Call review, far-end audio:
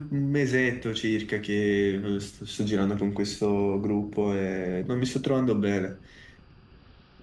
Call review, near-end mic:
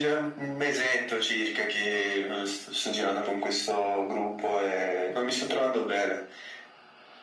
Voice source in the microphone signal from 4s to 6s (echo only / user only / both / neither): echo only